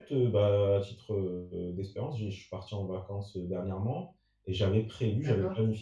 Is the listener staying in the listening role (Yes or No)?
Yes